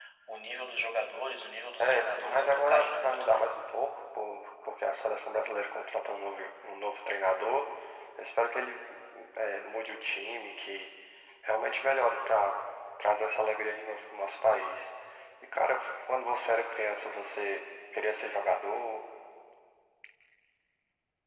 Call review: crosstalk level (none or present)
present